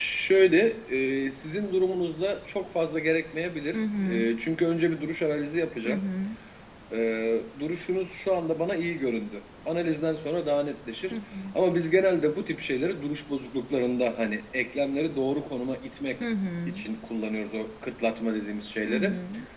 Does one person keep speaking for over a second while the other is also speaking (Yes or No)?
No